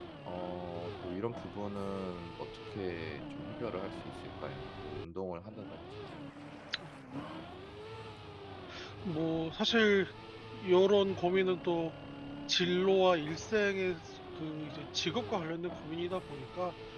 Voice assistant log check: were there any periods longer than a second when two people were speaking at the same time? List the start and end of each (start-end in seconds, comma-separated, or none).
none